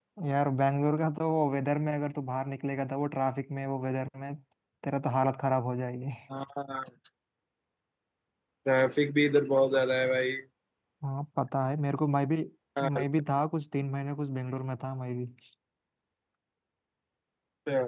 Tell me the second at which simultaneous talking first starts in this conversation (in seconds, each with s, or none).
none